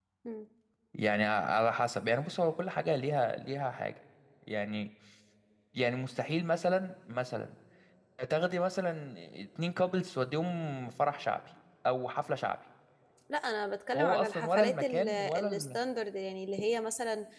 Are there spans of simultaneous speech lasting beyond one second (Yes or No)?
Yes